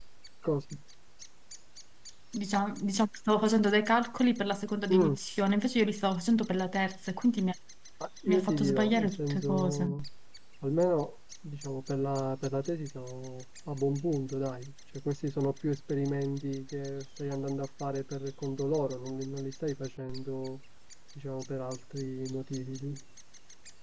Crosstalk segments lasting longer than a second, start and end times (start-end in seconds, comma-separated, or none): 8.2-9.9